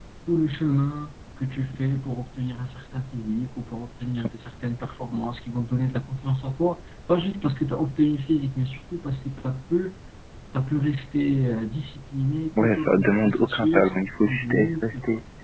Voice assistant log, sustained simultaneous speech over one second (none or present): present